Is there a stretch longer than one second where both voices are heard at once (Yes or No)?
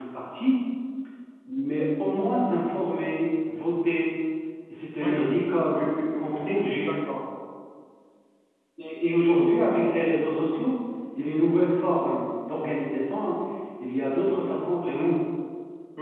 Yes